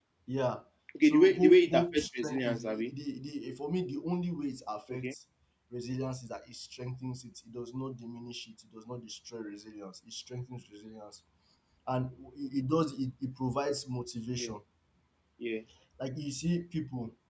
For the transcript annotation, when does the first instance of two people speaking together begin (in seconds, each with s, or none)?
1.0 s